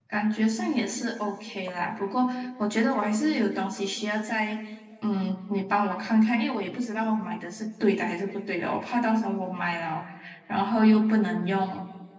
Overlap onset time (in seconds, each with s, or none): none